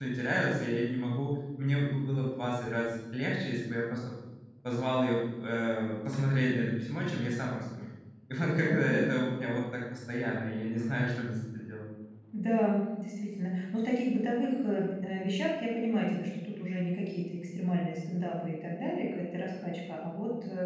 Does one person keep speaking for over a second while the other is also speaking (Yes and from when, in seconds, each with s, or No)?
No